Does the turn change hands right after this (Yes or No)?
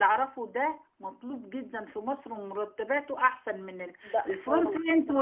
No